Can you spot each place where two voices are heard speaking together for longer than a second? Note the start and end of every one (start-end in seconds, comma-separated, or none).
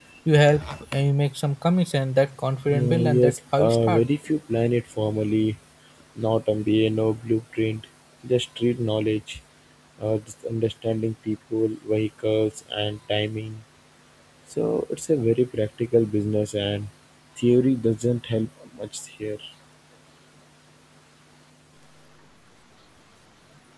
2.7-4.0